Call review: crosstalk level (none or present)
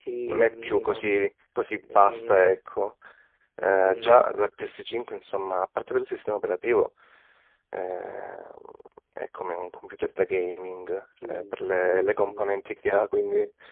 present